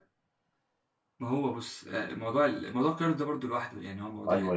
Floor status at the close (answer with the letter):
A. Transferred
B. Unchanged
A